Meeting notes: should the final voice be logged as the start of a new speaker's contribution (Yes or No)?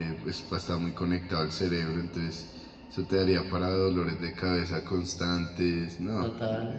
Yes